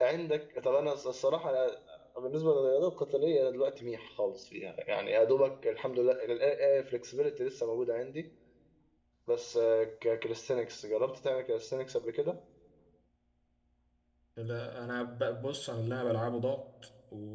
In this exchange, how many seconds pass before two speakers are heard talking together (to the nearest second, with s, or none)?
none